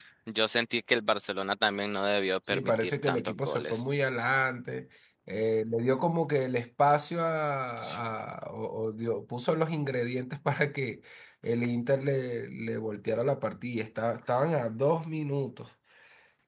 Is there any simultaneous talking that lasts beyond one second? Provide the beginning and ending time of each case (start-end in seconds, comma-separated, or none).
2.4-3.9